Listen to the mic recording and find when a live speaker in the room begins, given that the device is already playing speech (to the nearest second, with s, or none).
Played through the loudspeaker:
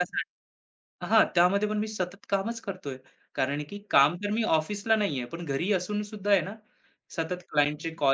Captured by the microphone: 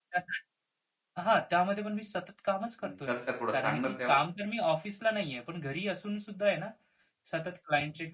3 s